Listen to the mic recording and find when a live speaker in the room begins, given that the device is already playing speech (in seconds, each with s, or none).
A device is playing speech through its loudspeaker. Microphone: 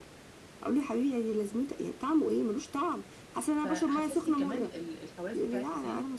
3.6 s